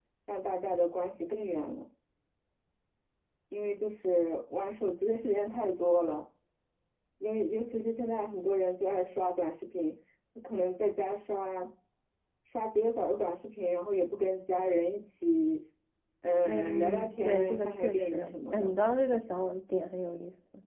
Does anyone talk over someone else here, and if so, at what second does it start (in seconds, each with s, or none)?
16.4 s